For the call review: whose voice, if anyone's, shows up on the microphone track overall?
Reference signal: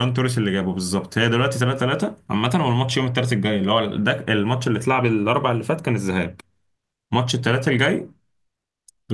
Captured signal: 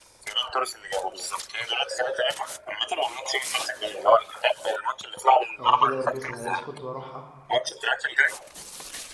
both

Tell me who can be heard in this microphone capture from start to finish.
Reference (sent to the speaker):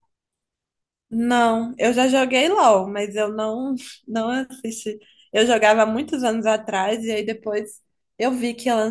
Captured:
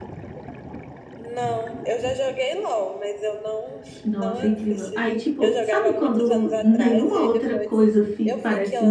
both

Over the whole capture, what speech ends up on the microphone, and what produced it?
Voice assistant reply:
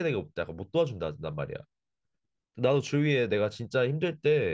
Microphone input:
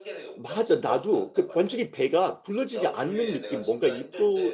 both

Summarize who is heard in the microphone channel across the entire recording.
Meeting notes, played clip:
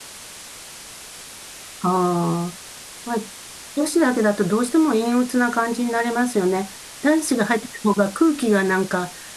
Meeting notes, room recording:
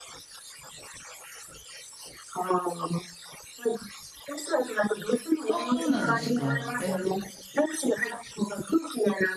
both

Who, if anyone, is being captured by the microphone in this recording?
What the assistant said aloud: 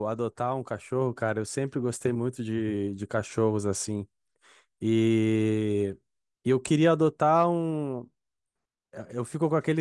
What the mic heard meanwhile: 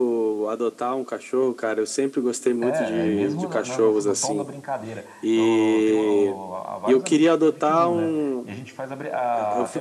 both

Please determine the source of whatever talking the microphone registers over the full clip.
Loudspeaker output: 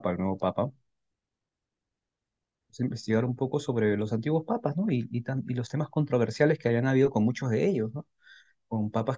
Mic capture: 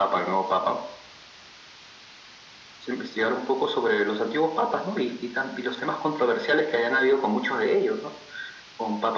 echo only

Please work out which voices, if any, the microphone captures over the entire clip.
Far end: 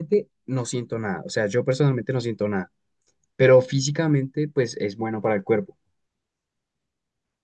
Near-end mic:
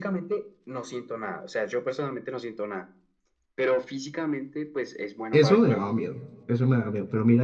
both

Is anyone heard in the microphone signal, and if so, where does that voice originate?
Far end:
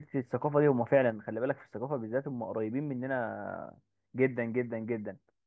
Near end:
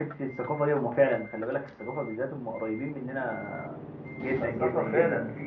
both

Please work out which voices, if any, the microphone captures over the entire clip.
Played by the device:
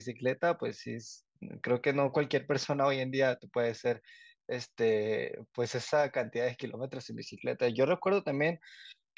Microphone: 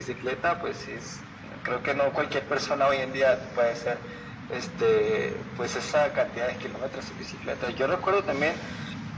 echo only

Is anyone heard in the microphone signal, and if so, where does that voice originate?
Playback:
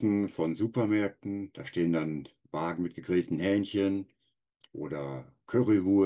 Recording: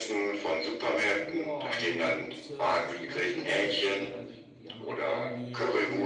both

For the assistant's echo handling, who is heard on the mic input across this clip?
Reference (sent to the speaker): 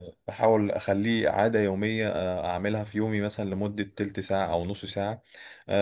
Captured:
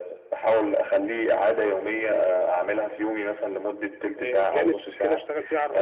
both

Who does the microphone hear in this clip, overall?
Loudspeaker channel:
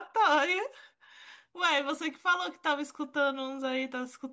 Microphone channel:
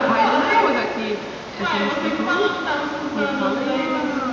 both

